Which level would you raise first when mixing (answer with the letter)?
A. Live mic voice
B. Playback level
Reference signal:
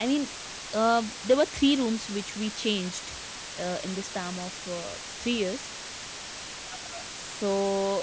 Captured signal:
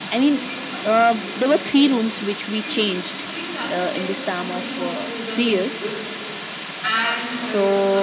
A